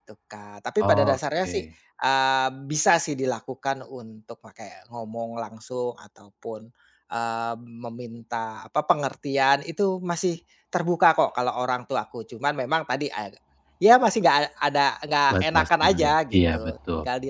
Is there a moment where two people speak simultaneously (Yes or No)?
Yes